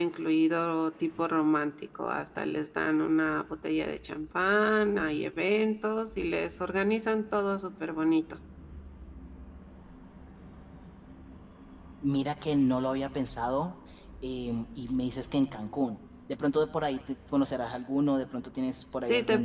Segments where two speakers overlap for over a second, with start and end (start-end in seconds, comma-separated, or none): none